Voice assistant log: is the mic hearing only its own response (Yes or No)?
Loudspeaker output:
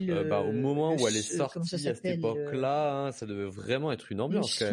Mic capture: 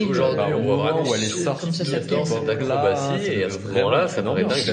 No